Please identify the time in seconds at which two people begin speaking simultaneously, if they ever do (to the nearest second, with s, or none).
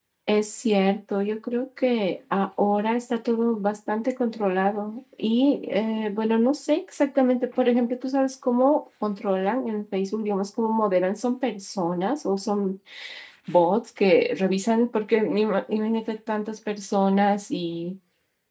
none